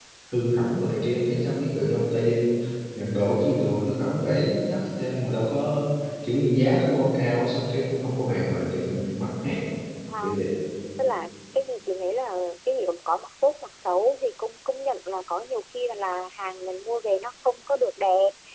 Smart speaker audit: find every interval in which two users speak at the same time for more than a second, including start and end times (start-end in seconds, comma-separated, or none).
none